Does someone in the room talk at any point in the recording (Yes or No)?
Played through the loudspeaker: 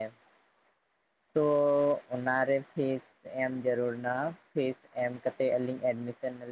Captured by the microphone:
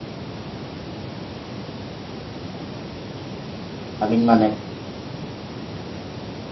Yes